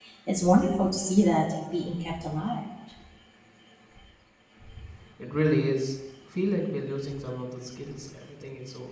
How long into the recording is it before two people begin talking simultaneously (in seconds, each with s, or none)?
none